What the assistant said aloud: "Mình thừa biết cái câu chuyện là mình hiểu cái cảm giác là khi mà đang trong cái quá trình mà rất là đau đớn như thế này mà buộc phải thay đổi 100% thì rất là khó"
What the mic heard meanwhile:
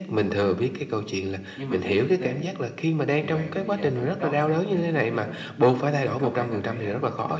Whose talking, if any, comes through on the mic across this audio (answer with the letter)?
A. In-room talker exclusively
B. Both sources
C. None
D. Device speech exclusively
B